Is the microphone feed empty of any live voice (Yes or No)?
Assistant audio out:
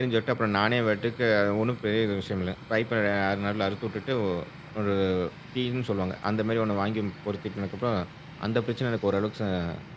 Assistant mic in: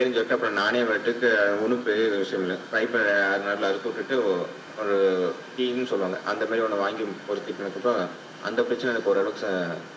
Yes